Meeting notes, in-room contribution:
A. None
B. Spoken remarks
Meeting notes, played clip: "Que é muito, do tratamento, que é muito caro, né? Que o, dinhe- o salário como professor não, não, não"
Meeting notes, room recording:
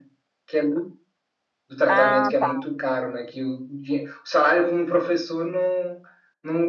B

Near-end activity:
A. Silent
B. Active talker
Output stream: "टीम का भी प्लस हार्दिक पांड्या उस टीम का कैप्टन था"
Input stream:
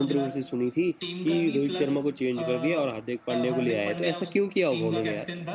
B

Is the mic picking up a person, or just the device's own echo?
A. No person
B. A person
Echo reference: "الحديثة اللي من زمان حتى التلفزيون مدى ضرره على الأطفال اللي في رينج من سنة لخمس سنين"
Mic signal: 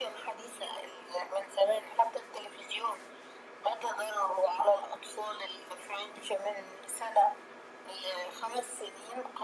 A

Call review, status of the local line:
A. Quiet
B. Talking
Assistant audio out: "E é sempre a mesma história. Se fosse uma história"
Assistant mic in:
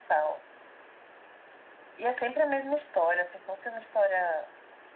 A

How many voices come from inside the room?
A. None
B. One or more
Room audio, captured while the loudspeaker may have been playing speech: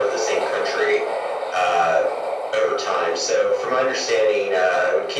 A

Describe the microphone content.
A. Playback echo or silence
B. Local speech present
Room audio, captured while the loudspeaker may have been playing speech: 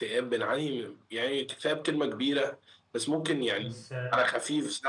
B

